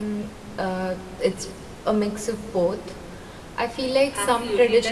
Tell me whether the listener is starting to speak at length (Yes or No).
Yes